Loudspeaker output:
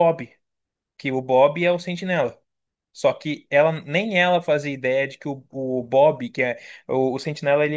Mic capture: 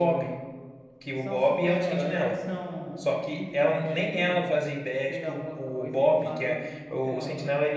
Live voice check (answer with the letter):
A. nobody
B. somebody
B